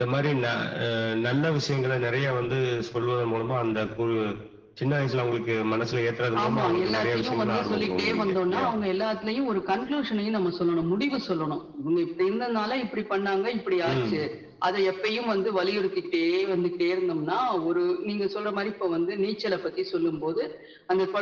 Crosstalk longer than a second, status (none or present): present